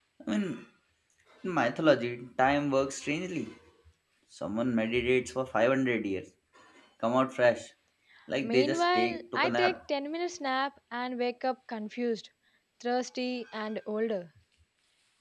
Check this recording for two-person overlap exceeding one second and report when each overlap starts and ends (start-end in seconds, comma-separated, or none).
8.4-9.8